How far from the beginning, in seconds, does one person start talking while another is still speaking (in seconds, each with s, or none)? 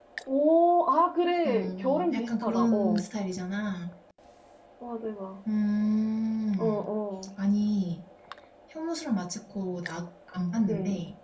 1.4 s